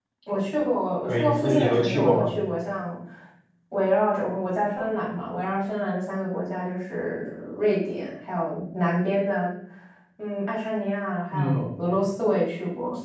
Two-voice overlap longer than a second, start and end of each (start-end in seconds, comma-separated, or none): 1.0-2.3